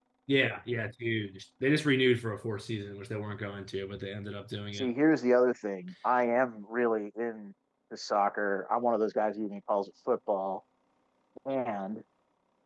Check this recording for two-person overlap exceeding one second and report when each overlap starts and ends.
none

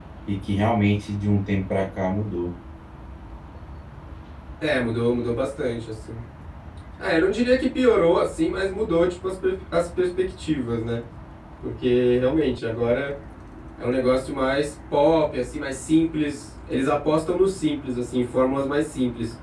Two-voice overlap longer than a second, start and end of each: none

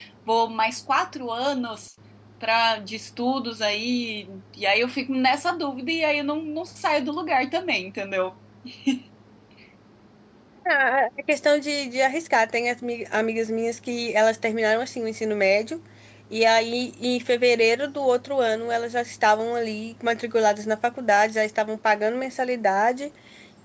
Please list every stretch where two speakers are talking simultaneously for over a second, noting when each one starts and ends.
none

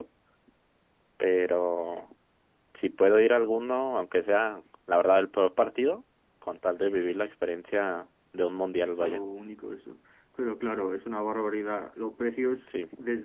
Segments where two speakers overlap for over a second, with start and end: none

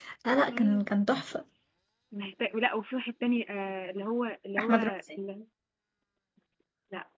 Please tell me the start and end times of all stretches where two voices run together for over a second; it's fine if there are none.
none

